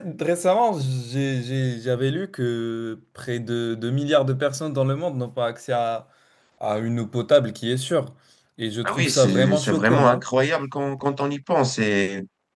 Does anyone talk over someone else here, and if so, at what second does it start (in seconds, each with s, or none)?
8.8 s